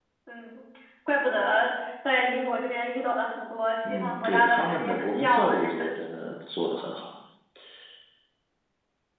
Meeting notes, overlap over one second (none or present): present